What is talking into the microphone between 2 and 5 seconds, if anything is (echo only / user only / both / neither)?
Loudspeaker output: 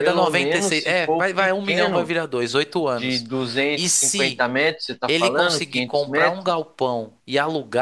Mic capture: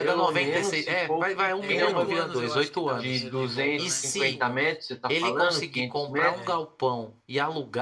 both